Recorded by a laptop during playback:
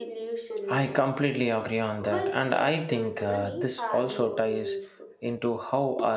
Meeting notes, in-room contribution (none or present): present